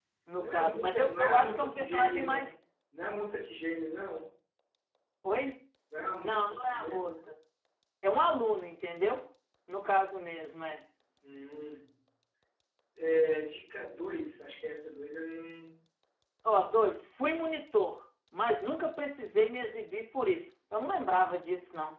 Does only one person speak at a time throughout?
No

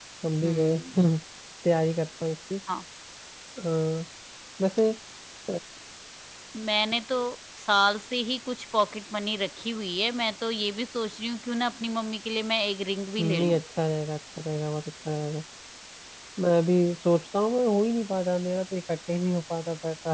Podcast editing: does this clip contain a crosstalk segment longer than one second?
No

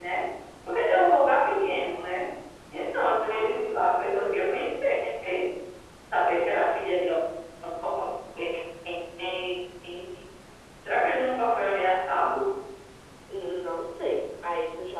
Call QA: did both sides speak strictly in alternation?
Yes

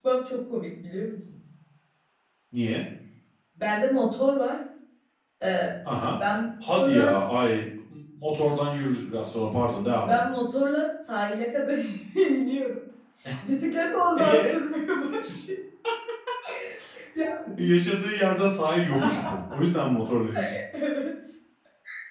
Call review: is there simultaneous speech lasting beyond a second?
No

